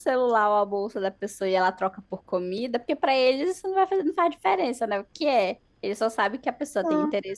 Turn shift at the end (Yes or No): No